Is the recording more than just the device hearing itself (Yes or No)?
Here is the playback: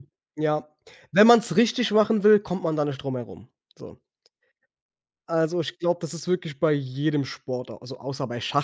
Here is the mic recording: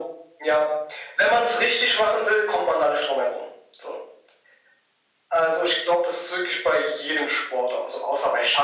No